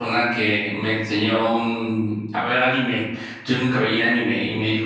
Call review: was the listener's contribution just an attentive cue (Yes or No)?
Yes